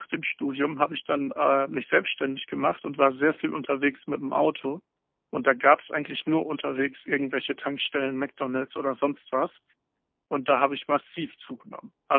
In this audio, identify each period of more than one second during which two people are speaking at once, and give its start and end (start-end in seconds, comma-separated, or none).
none